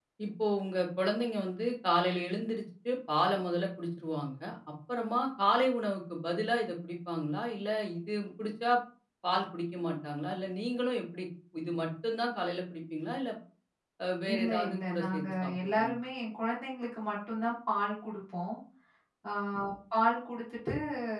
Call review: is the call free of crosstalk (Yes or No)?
No